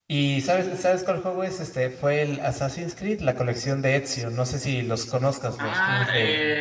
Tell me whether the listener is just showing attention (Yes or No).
No